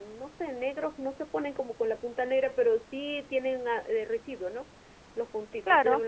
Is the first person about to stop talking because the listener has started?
No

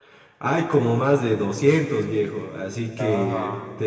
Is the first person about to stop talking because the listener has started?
No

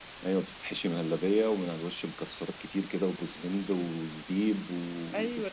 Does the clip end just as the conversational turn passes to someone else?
Yes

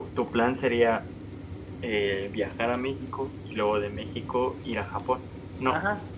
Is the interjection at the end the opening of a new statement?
Yes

